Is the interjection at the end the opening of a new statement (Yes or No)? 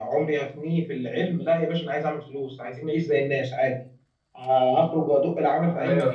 No